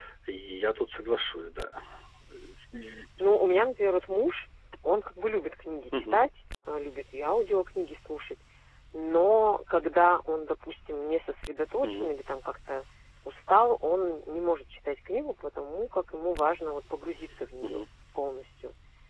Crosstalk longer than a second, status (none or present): none